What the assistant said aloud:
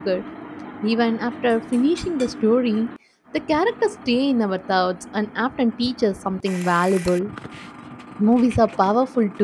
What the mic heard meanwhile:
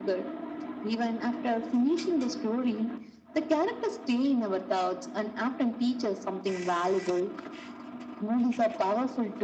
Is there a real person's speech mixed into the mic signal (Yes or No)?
No